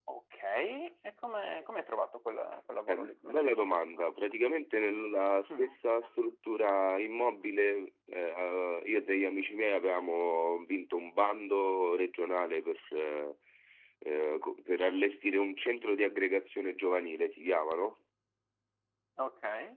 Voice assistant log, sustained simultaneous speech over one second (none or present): present